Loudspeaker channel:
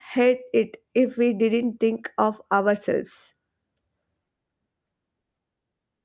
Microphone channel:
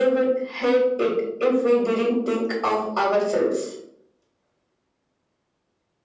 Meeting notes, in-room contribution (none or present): none